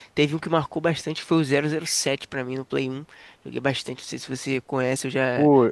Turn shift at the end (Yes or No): Yes